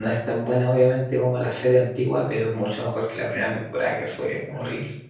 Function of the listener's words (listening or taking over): taking over